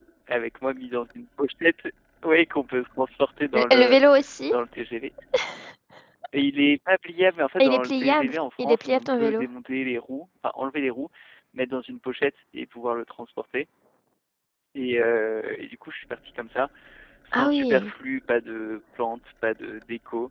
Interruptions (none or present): present